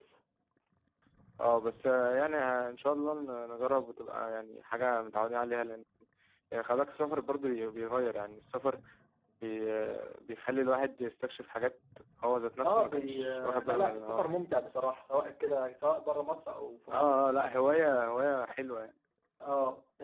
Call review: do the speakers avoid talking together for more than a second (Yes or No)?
No